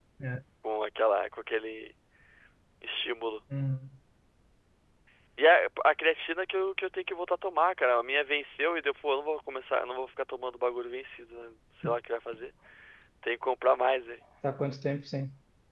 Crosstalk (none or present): none